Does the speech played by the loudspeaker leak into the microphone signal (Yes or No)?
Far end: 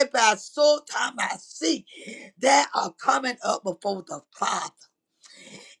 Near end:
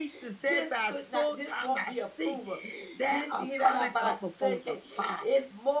Yes